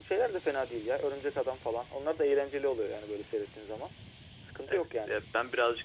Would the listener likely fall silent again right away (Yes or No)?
No